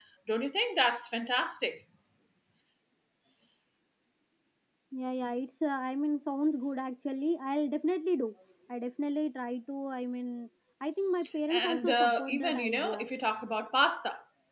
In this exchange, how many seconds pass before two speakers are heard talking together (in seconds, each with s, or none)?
11.5 s